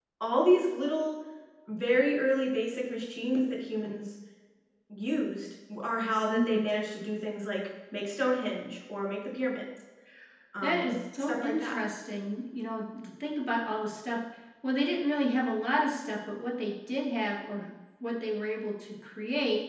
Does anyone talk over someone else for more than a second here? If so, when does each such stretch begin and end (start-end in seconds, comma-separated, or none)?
10.6-11.8